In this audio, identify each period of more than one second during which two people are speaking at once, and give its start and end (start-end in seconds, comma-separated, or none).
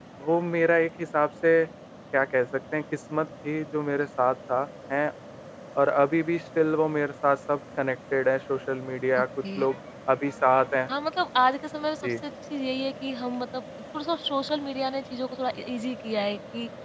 none